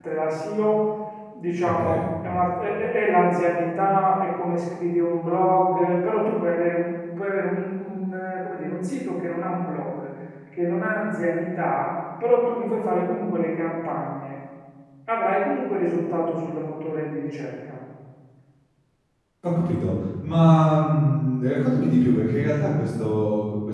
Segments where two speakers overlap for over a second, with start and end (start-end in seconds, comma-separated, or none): none